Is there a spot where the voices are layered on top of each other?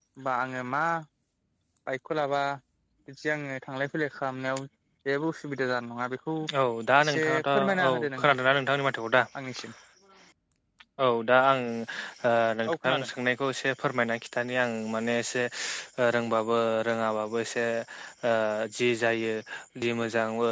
Yes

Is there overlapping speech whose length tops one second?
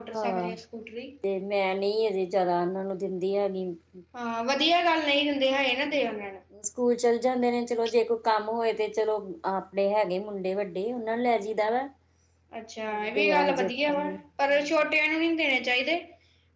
Yes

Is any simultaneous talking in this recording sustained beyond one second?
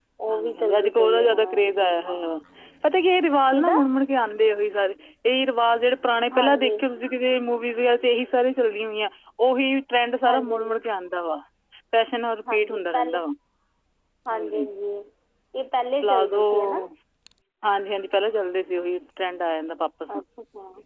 Yes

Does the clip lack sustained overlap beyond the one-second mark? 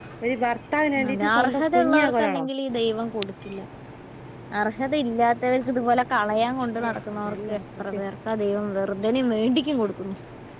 No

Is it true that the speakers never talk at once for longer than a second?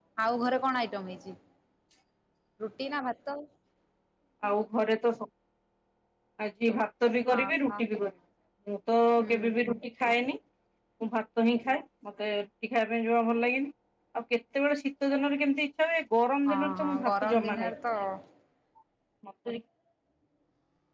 No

